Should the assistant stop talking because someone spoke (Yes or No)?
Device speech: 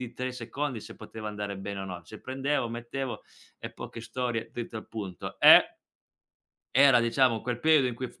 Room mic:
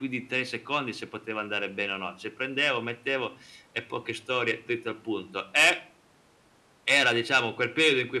No